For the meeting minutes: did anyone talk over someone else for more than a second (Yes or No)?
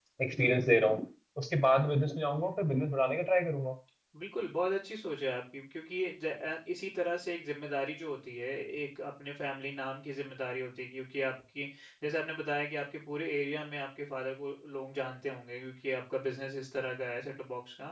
No